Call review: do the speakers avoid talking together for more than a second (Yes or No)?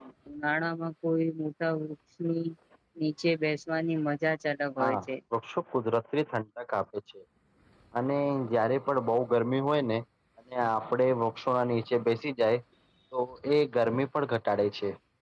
Yes